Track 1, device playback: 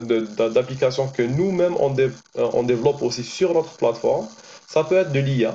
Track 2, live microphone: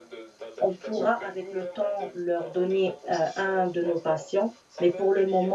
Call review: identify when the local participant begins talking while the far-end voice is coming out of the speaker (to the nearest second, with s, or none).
1 s